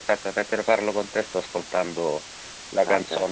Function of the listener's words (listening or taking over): listening